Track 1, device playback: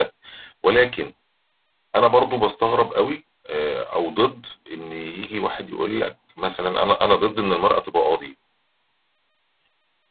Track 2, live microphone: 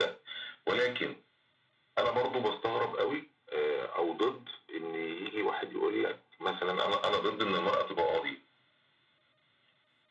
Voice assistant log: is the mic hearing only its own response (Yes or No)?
Yes